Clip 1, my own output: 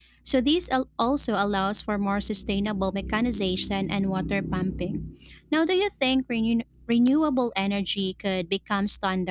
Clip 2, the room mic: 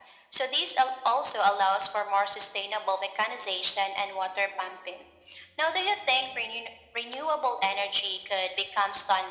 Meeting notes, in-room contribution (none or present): none